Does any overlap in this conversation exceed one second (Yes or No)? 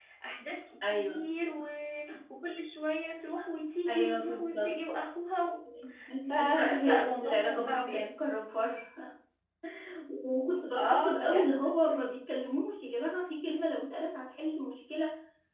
Yes